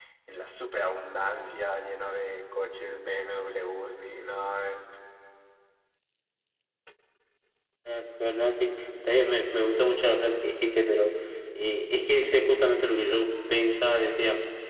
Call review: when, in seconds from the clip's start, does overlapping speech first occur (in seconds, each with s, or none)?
none